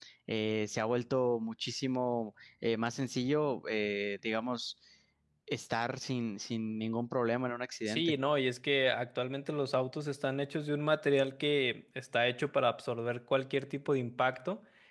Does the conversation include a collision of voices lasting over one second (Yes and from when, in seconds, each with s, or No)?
No